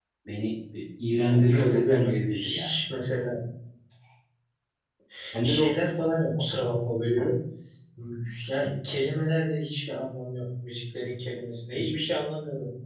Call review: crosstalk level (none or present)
present